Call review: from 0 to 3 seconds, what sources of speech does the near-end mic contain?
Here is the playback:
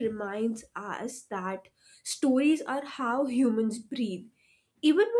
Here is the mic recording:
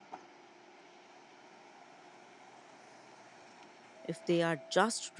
neither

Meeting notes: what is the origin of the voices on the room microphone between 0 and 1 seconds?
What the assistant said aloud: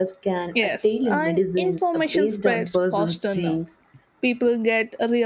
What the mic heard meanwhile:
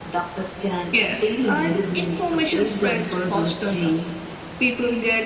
echo only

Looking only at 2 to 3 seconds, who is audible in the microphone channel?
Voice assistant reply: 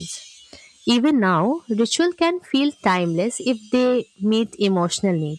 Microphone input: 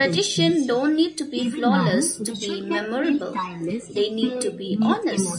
both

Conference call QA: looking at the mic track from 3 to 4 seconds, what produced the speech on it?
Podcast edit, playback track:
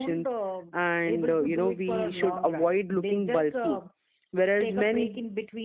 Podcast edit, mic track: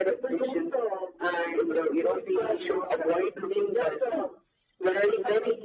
echo only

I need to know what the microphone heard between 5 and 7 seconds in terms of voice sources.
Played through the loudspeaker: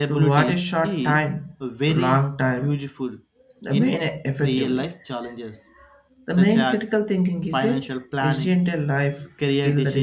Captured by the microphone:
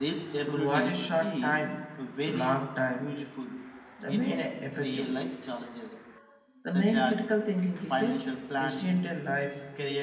echo only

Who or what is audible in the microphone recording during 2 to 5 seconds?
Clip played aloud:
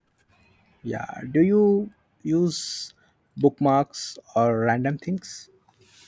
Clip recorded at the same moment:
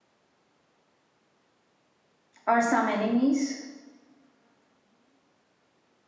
user only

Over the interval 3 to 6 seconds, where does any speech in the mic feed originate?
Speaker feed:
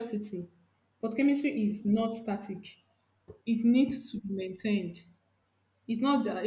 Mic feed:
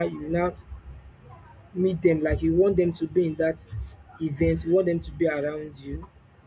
user only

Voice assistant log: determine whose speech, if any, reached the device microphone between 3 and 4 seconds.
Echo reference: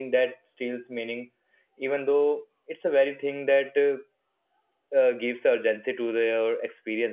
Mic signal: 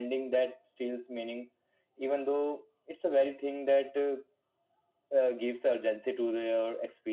echo only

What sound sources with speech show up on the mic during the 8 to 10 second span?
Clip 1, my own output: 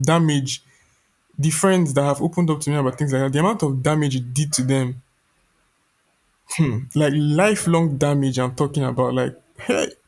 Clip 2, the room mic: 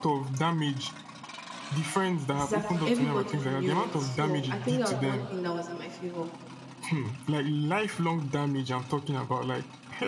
echo only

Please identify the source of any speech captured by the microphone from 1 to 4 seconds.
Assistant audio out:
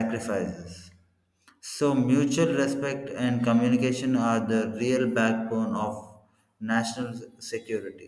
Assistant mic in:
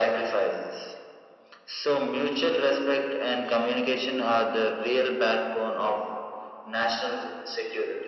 echo only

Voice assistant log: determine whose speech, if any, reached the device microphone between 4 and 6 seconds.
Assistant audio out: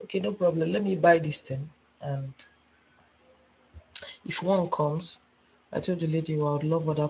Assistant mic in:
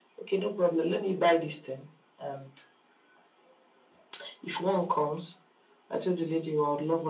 echo only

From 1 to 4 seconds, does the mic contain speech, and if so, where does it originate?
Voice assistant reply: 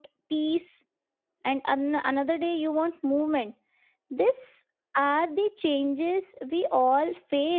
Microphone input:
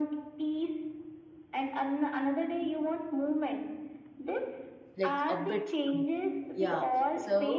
echo only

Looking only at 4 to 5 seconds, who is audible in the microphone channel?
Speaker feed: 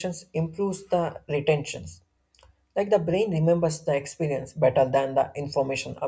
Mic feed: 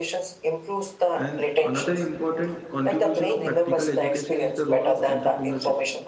both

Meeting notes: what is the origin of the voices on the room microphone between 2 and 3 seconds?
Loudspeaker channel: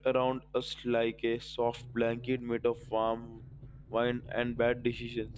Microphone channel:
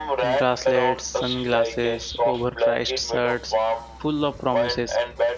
both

